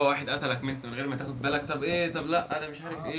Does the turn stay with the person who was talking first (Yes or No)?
No